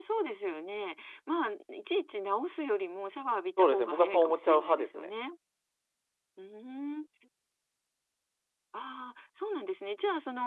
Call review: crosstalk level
present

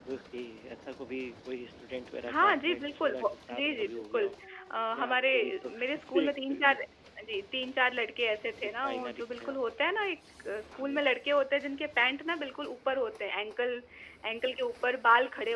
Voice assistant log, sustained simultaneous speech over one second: present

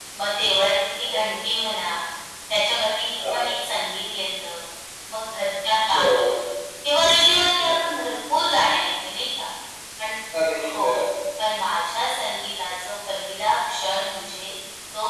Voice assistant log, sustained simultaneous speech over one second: none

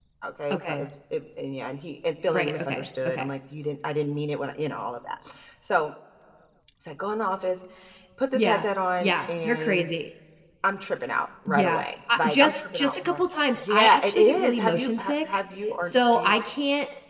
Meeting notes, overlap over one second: present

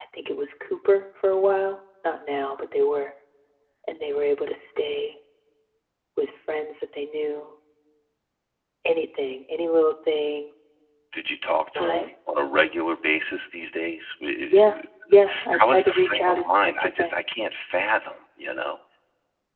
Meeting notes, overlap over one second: present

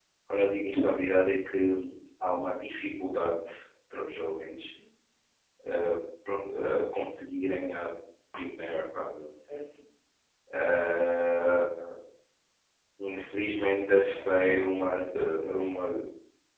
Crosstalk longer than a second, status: present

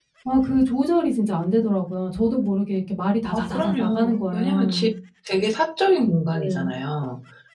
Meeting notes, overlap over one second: present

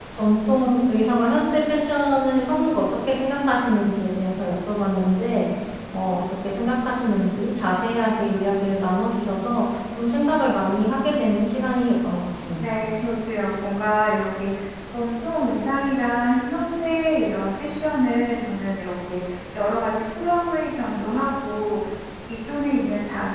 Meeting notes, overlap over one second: none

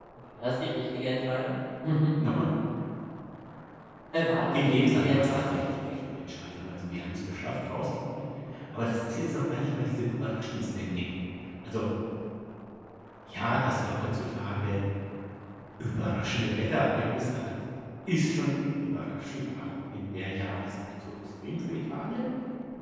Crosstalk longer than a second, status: present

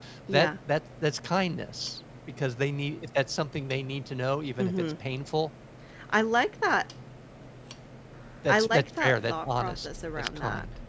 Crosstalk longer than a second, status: present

